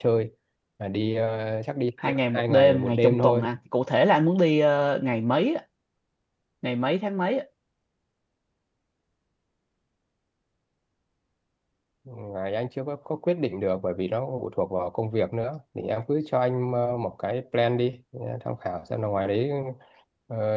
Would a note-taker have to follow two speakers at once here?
Yes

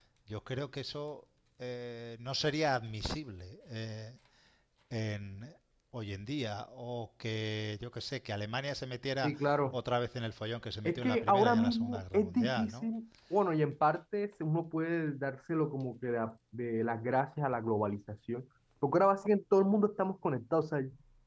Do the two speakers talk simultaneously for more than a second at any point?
Yes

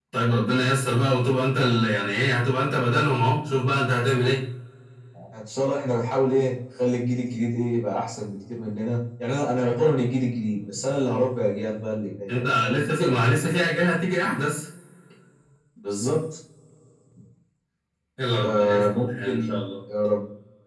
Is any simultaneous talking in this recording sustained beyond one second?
Yes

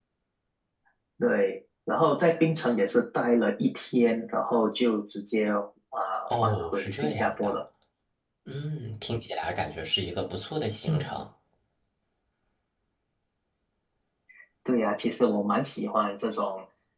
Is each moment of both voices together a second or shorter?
No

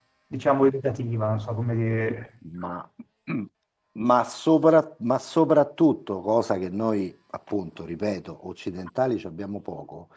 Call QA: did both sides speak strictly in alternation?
Yes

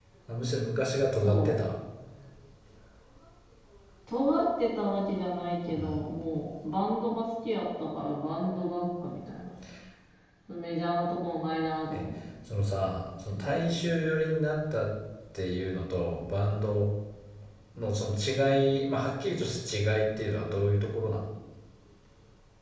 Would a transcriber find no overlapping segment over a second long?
Yes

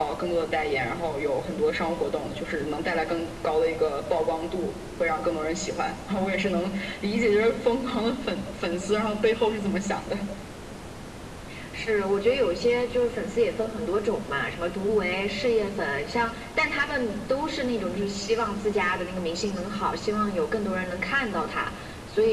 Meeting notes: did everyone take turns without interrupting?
Yes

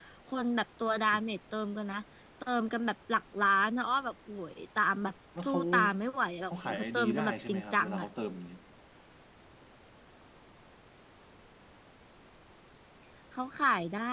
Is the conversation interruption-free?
No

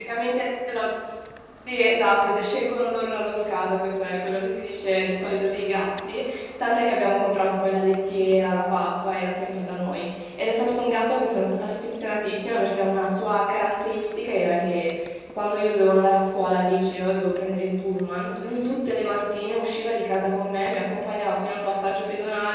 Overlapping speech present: No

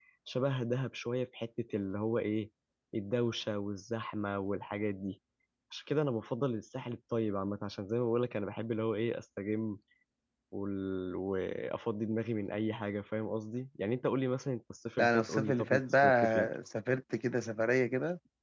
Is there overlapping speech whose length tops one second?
Yes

